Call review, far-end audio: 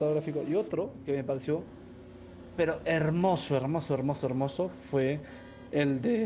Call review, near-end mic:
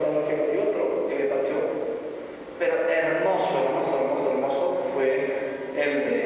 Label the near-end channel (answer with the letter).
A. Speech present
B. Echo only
B